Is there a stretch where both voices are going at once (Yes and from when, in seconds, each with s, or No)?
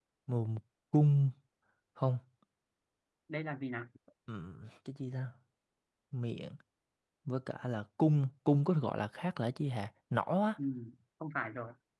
No